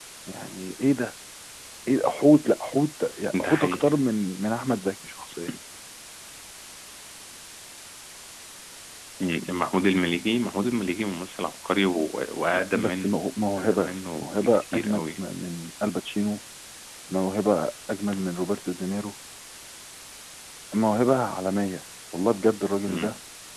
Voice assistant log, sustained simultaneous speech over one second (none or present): present